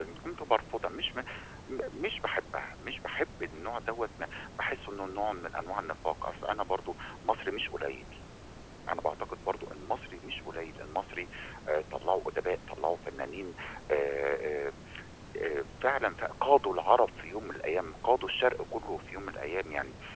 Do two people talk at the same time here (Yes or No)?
No